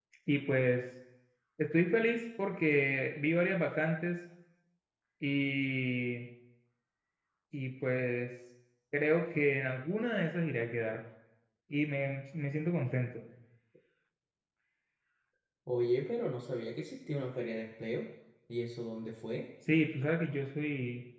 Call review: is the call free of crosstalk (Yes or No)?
Yes